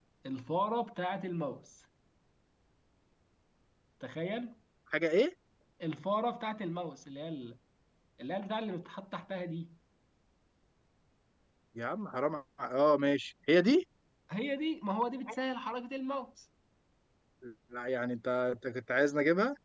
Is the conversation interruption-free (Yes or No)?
Yes